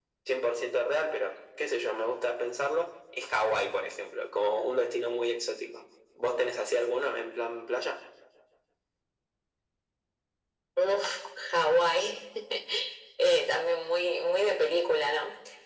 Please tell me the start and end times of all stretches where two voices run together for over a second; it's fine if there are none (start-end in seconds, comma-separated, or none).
none